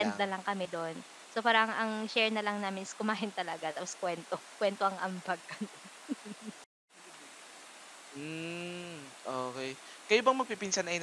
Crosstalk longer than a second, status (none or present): none